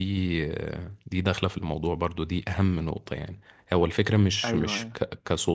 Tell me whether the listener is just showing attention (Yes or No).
Yes